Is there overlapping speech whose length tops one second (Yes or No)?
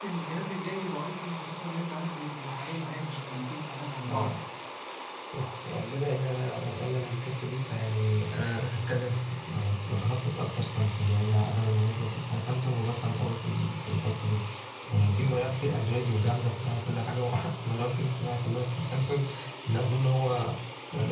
No